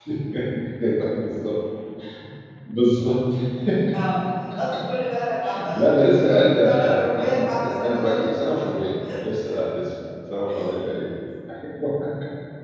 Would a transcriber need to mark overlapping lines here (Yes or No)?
Yes